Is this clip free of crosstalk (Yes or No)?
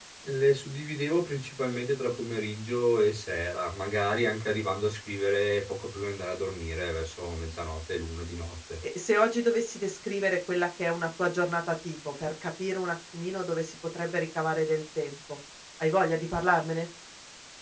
Yes